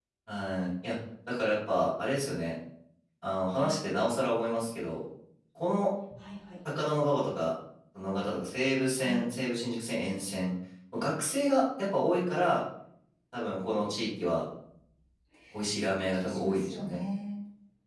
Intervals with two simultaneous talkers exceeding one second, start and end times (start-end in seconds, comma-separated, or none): 15.8-17.0